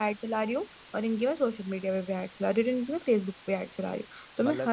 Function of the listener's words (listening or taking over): listening